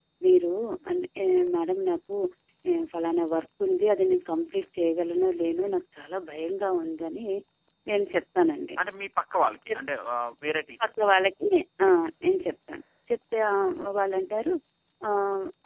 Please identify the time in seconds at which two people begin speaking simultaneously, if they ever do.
none

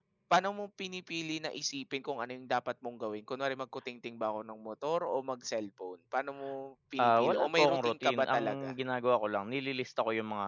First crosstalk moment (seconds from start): 7.0 s

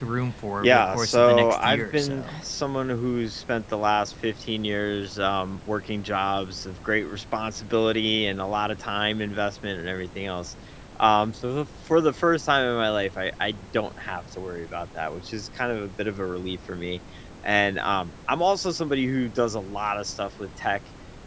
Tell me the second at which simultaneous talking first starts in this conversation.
0.6 s

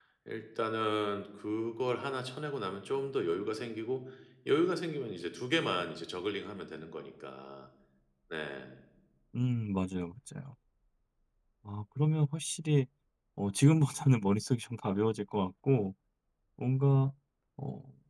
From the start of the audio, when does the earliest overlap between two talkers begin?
none

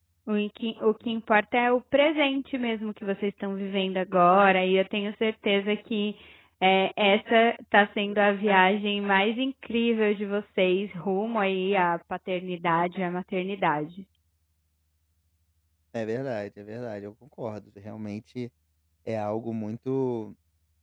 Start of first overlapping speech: none

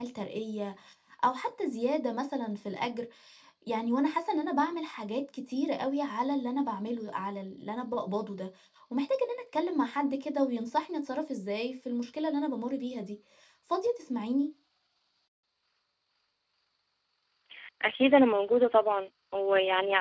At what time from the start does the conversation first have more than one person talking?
none

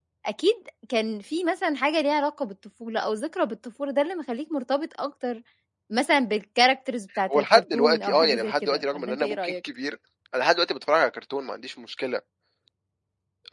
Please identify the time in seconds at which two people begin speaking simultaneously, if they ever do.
7.3 s

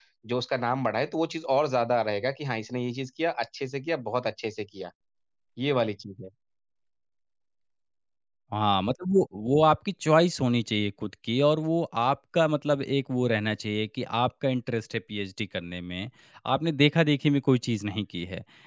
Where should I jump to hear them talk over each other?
none

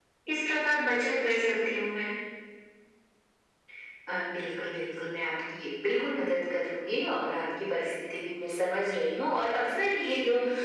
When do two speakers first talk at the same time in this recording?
none

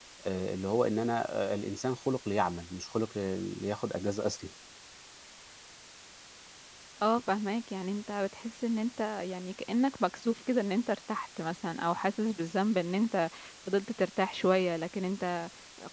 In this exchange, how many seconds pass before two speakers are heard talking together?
none

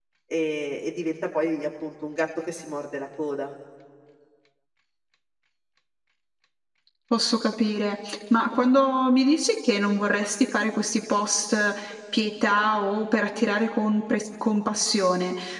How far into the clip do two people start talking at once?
none

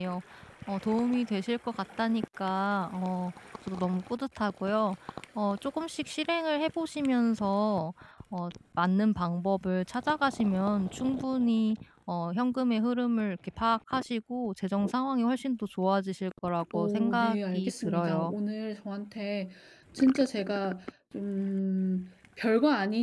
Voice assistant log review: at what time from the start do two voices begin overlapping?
16.7 s

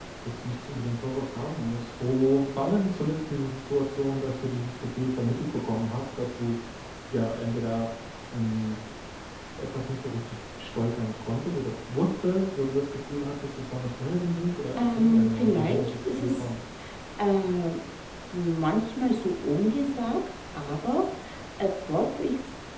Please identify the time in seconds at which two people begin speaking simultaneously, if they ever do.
14.8 s

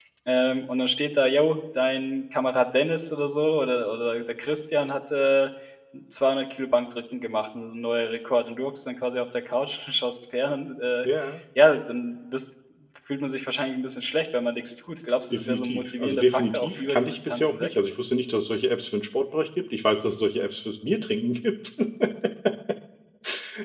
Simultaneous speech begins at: 15.3 s

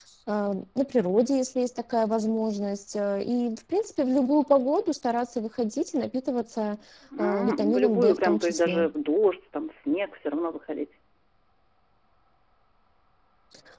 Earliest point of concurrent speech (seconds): 7.2 s

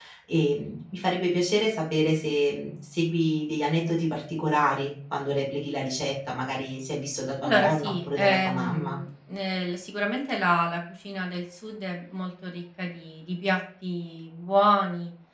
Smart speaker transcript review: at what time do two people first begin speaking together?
7.4 s

